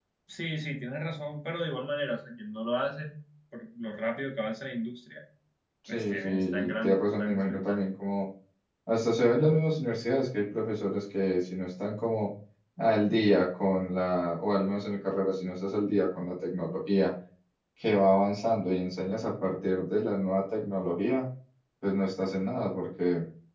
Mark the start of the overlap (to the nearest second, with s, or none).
6 s